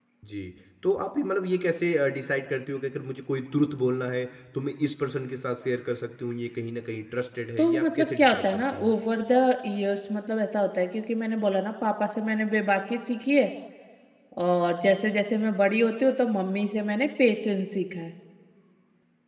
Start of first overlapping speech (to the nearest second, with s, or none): 8 s